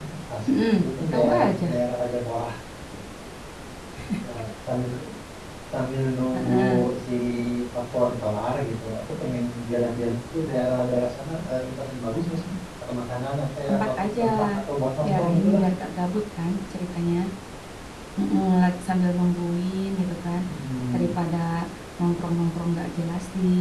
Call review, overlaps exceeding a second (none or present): present